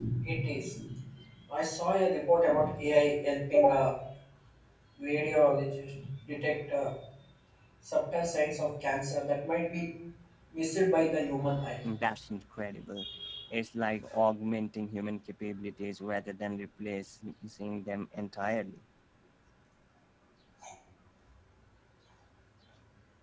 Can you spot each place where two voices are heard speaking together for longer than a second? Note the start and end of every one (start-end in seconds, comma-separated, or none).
none